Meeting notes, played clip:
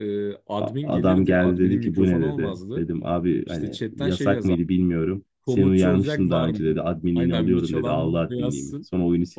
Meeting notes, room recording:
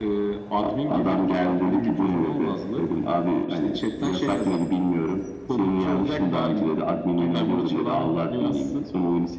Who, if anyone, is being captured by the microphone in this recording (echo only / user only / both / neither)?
echo only